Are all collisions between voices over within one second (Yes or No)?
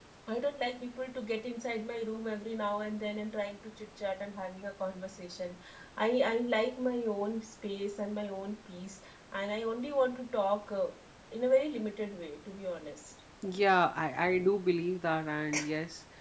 Yes